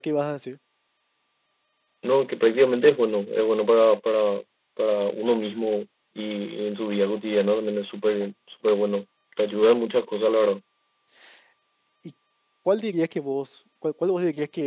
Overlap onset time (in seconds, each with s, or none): none